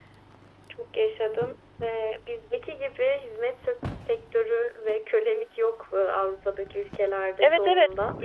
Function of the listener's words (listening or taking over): taking over